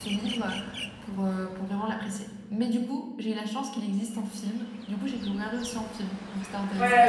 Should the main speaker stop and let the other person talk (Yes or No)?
Yes